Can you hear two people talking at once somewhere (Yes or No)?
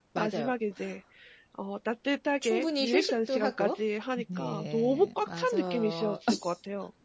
Yes